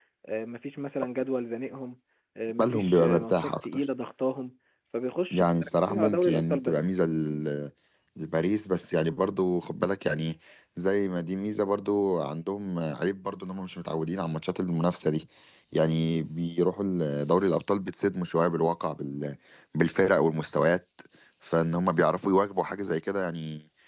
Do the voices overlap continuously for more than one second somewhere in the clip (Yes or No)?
Yes